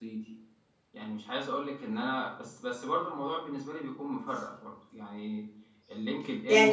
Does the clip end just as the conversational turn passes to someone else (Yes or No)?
Yes